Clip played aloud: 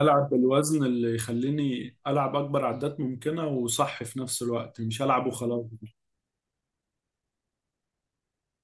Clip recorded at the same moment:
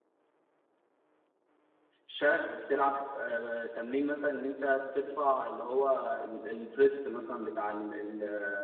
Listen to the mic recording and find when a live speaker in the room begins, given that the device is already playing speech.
2.1 s

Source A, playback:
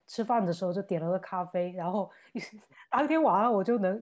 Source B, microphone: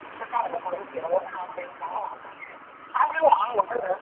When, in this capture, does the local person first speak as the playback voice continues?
none

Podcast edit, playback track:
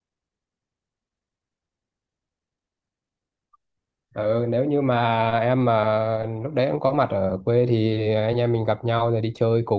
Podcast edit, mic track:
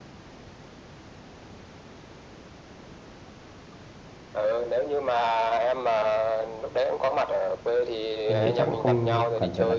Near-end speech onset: 8.3 s

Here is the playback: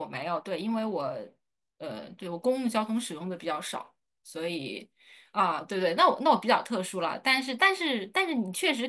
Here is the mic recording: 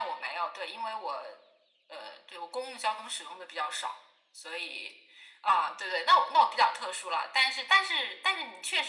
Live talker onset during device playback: none

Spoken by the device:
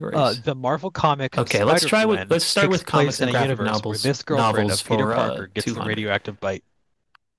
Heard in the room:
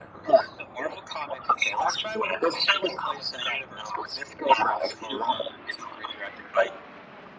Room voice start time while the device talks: none

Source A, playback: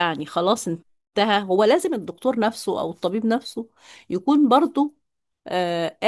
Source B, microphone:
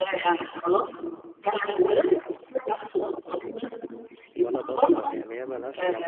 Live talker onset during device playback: 4.3 s

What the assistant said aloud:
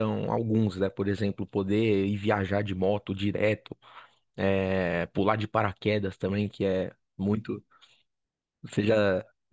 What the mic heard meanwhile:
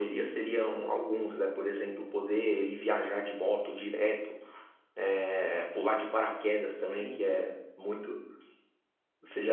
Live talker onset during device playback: 6.9 s

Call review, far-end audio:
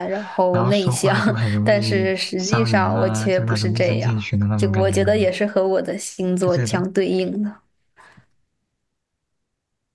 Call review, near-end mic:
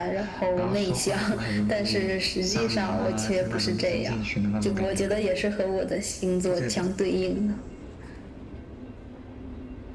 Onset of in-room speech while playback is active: none

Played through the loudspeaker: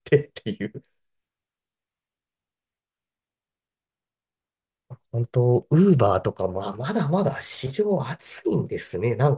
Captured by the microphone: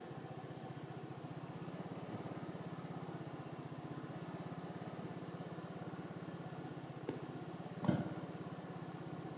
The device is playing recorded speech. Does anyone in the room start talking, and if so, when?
none

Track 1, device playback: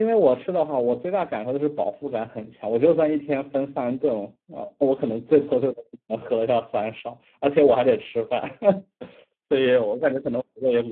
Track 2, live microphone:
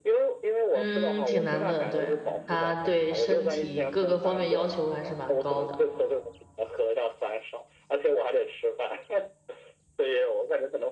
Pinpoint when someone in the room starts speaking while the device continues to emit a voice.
0.7 s

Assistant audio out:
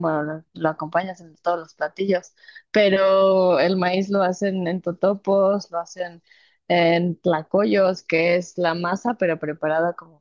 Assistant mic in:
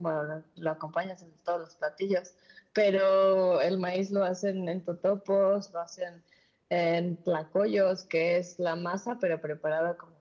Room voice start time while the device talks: none

